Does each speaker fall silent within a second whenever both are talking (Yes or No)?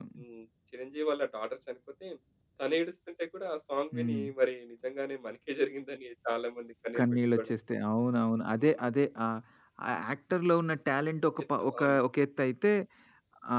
Yes